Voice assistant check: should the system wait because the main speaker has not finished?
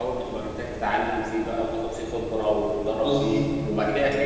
Yes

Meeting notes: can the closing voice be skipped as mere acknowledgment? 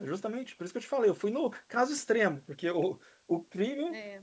Yes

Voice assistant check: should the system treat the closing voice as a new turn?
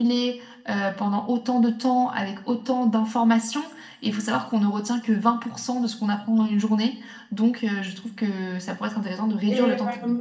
Yes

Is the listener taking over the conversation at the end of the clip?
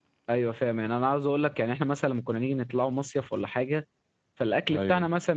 No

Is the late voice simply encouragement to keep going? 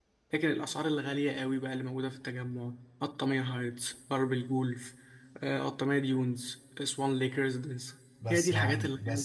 No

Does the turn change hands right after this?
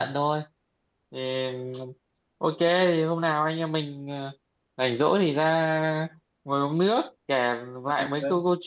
No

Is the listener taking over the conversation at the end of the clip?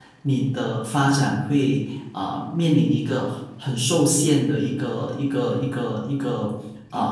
No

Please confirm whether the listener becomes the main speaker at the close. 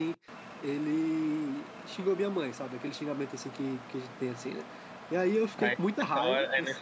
Yes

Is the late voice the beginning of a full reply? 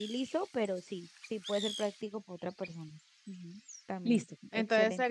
Yes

